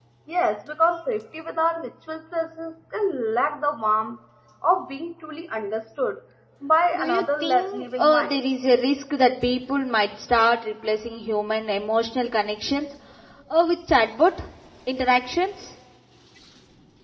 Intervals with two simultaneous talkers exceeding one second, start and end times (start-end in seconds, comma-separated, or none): 6.9-8.3